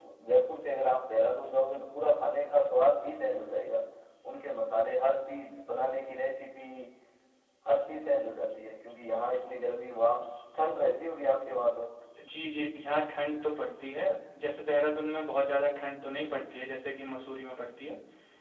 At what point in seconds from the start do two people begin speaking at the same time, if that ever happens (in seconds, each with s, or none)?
none